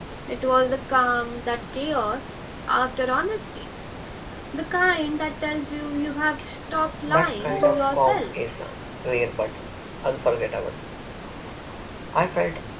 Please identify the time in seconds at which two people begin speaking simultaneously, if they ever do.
7.1 s

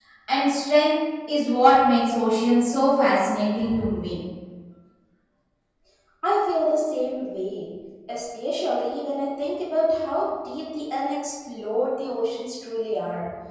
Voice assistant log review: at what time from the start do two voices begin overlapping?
none

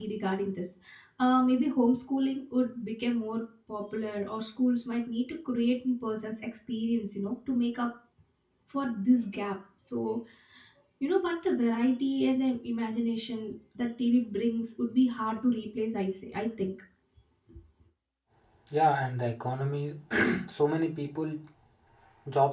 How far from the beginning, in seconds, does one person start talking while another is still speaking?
none

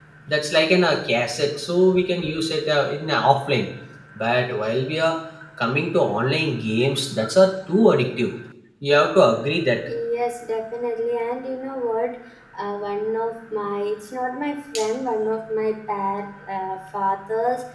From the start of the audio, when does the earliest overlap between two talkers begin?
none

